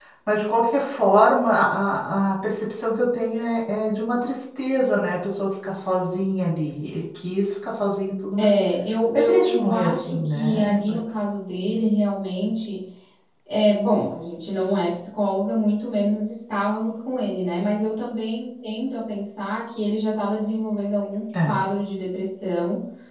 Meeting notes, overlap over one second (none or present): present